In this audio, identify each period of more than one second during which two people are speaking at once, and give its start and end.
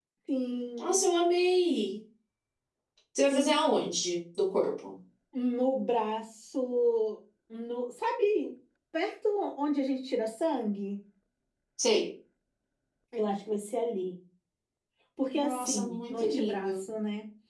15.3-16.8

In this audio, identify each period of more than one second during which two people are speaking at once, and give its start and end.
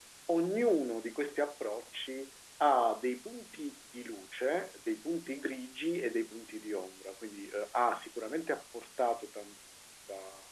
none

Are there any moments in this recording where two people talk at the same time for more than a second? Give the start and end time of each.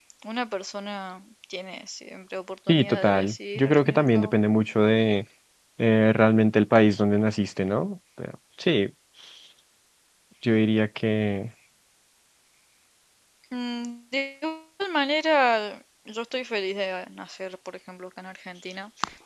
2.7-4.3

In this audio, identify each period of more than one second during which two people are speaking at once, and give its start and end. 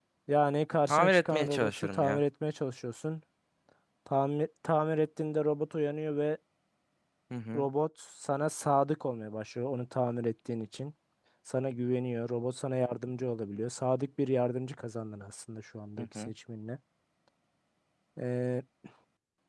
0.9-2.2

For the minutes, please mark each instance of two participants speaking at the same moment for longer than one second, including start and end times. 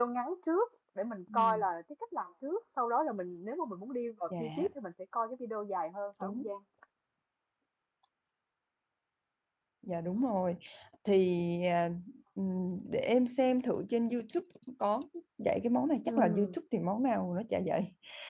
none

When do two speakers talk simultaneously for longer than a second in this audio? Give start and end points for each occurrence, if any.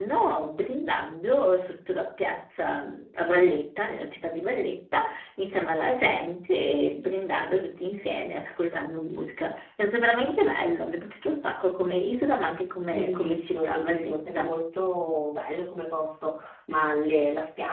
12.9-14.5

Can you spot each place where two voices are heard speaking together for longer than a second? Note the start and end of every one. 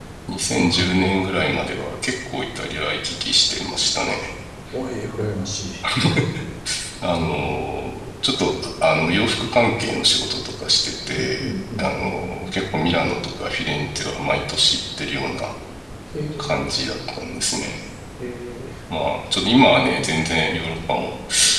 11.1-12.5

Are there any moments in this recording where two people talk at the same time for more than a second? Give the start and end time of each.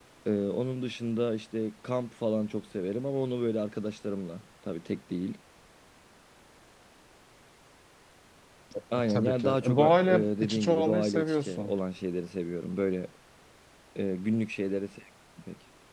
9.1-11.7

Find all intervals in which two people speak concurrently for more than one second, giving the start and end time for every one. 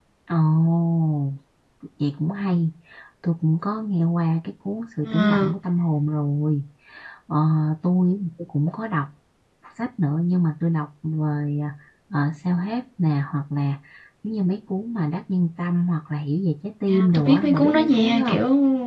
16.9-18.4

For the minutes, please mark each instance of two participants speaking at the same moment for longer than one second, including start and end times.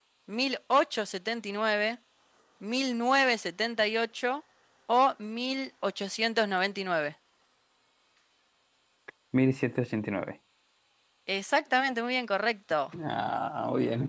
none

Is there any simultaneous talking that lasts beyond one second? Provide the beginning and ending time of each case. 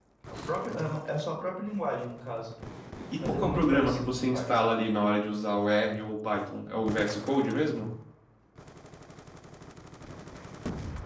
3.2-4.5

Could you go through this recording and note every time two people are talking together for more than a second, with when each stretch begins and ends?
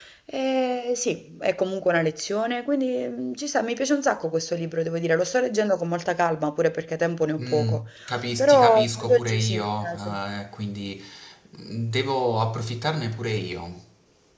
8.4-10.2

